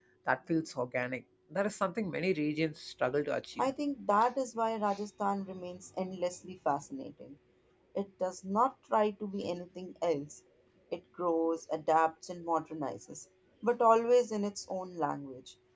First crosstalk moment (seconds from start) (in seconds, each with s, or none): none